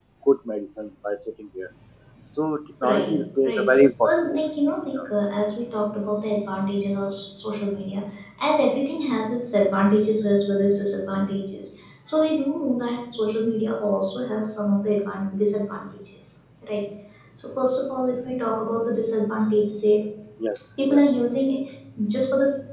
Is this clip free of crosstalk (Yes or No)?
No